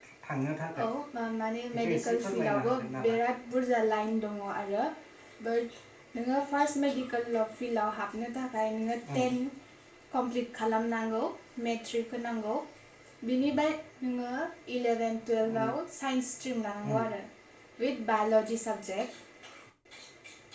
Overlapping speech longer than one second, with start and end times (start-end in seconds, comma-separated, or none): 1.7-3.2